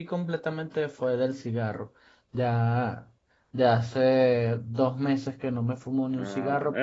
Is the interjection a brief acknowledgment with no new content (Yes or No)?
No